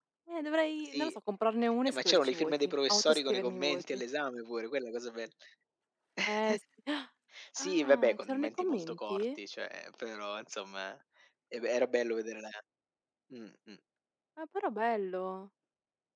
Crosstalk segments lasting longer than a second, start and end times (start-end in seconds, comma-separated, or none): 1.9-4.0, 7.6-9.2